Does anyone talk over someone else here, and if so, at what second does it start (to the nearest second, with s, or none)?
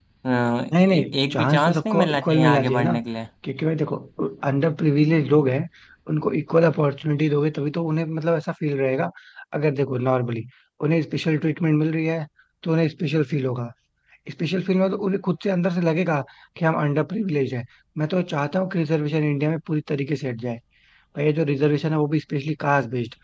1 s